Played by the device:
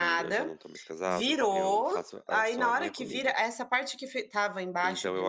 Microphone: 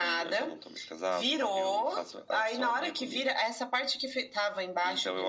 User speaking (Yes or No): No